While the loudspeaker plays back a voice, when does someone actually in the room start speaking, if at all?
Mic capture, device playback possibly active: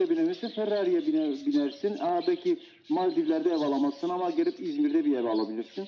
none

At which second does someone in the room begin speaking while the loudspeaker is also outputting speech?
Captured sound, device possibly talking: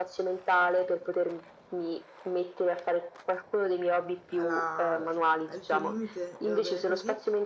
4.3 s

